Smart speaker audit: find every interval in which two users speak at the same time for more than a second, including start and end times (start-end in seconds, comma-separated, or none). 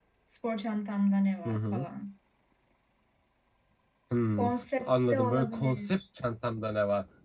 4.4-6.0